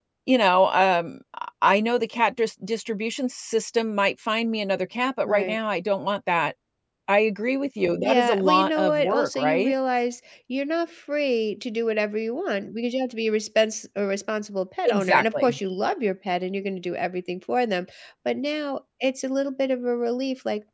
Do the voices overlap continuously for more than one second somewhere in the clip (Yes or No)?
Yes